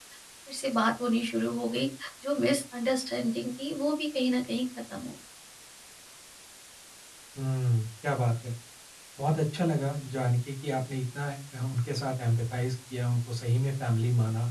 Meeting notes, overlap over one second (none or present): none